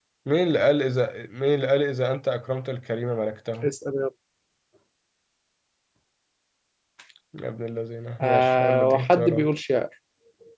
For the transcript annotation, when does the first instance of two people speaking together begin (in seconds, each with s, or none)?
8.2 s